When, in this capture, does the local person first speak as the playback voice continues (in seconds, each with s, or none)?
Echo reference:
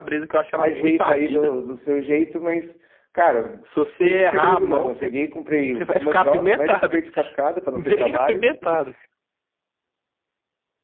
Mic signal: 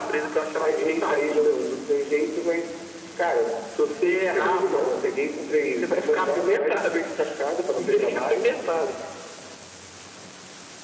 none